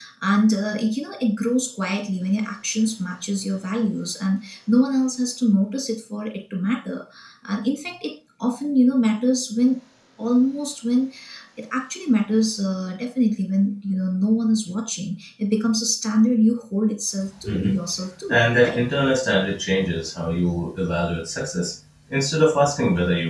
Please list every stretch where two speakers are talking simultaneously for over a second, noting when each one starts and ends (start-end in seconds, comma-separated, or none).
none